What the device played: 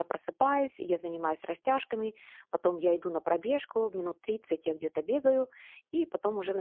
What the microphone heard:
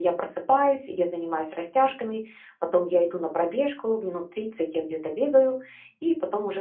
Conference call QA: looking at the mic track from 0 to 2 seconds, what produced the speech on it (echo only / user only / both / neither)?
echo only